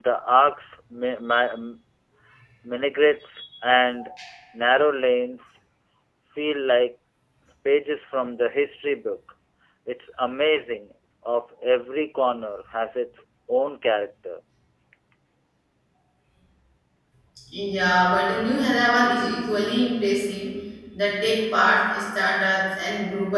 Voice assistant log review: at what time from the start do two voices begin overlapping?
none

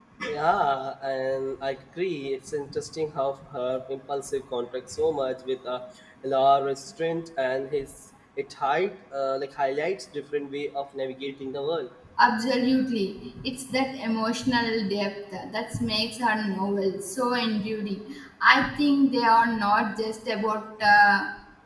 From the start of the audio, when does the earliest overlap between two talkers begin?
none

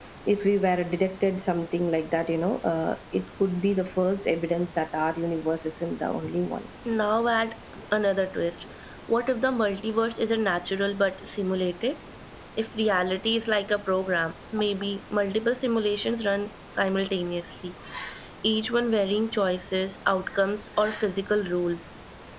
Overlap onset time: none

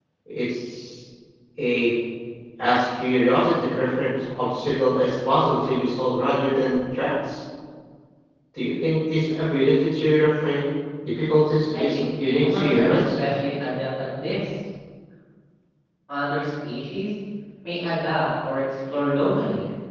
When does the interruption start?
11.7 s

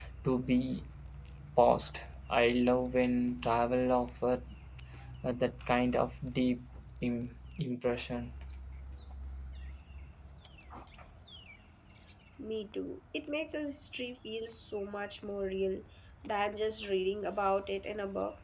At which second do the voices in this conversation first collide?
none

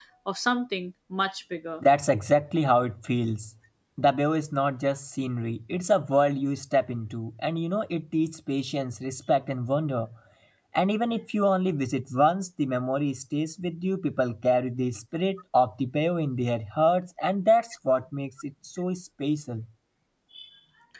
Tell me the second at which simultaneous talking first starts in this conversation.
none

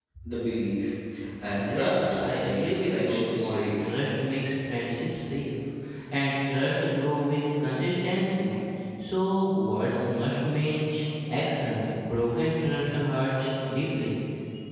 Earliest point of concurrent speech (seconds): 1.6 s

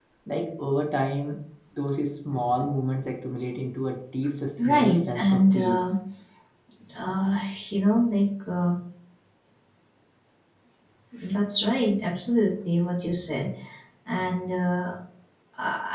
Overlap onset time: 4.6 s

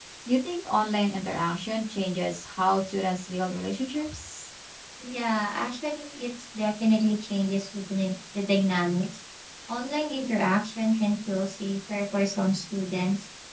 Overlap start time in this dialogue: none

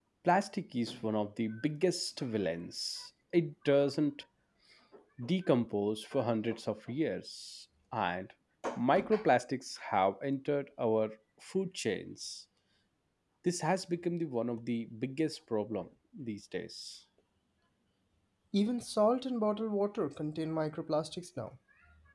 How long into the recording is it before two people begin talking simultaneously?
none

